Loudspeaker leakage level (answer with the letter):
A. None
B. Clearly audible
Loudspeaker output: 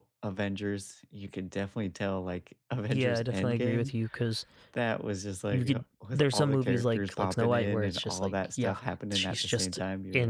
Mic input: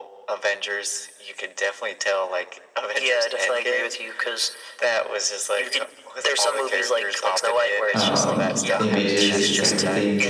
B